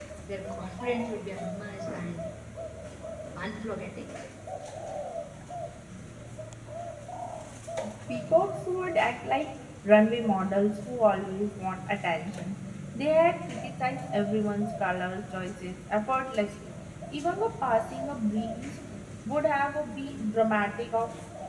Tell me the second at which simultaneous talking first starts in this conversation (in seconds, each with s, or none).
none